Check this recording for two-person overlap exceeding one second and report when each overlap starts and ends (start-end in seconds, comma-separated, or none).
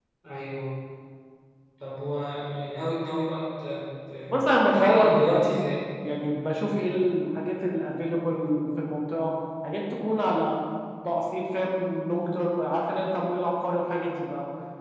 4.3-5.6